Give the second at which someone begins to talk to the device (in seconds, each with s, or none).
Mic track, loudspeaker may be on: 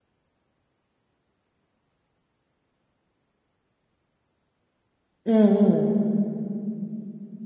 5.3 s